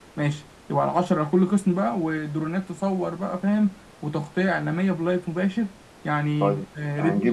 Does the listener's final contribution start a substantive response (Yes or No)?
Yes